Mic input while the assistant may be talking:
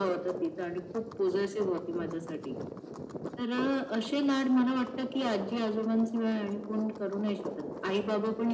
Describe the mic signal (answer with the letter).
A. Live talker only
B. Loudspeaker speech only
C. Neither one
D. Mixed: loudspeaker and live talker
B